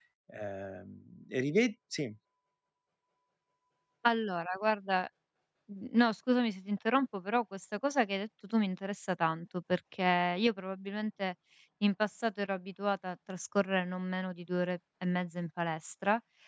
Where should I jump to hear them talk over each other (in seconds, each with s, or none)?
none